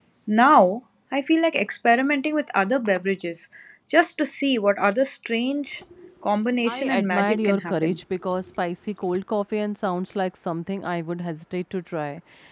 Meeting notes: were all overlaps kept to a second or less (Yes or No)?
No